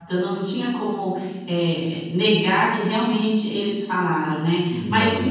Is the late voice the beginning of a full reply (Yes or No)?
No